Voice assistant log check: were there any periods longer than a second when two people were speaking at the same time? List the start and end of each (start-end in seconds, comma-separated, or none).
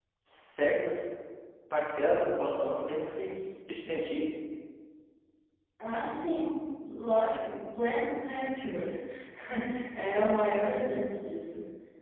none